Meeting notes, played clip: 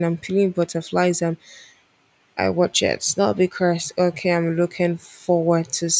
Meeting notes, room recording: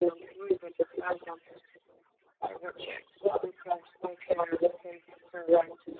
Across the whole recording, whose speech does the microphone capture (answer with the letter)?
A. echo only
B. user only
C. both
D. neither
A